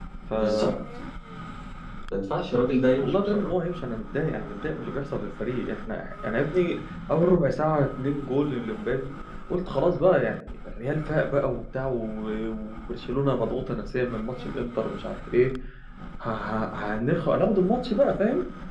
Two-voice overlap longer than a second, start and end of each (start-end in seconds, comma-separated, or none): none